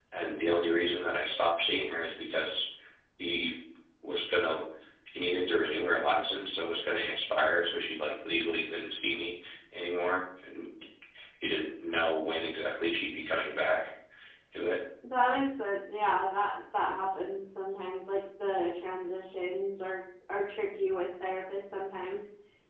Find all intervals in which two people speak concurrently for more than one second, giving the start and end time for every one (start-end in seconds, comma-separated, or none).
none